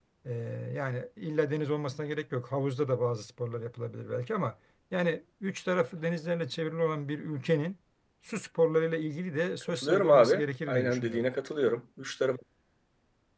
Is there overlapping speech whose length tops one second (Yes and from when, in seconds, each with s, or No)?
Yes, from 9.7 s